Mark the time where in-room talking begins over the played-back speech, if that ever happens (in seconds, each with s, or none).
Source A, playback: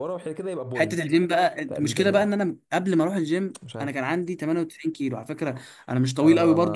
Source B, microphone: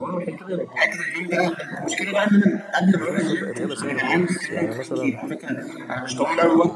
3.0 s